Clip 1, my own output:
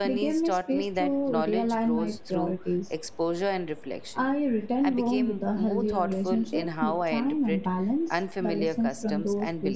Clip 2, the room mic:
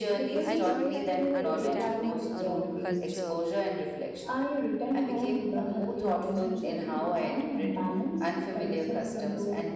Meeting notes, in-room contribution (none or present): present